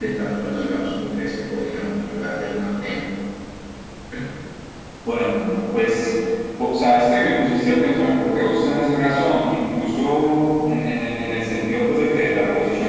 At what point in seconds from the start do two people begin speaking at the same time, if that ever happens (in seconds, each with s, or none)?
none